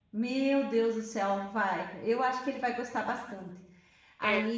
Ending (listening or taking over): taking over